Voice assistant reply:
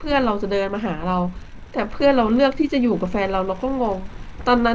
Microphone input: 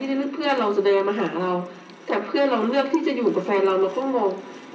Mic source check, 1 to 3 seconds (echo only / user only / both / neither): echo only